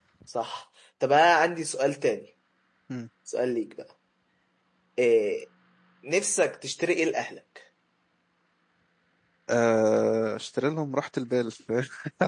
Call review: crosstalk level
none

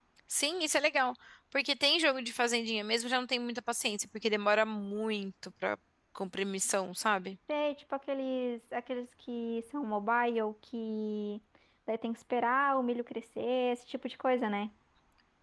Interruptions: none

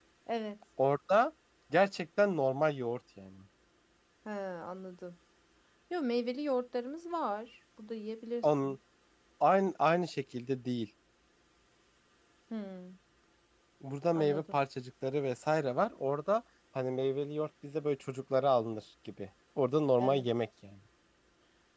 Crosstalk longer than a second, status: none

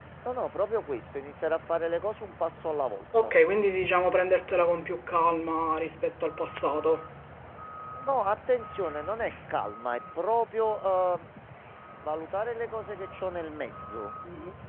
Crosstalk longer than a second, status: none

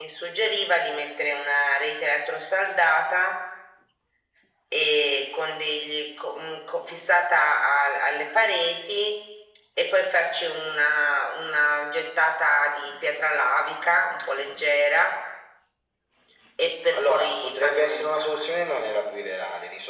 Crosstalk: present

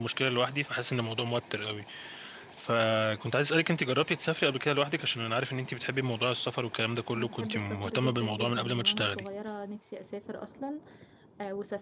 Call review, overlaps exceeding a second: present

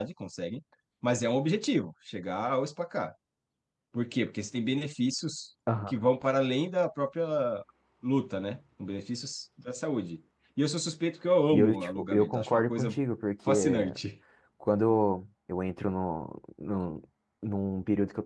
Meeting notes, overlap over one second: present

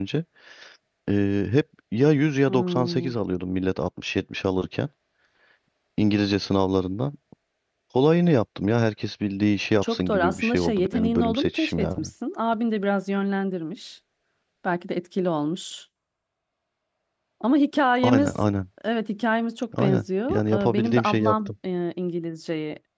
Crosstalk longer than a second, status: present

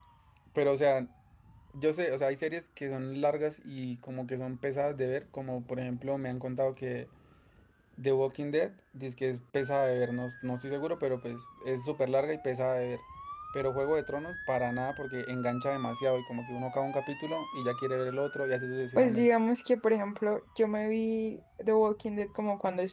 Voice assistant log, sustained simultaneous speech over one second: none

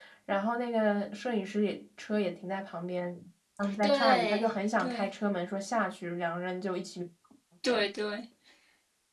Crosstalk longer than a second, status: present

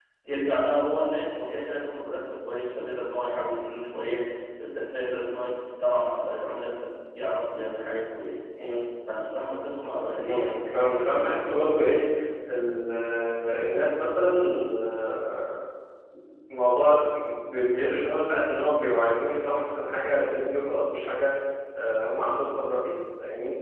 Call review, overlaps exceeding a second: none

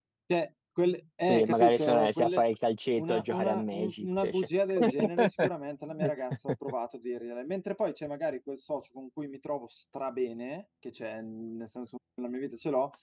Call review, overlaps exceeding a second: present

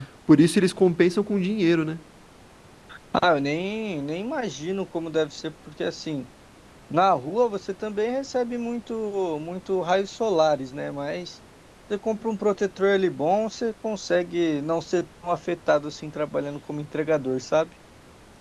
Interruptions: none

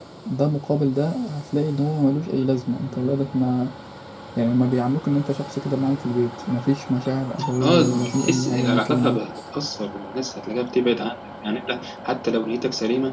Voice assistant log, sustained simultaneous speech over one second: present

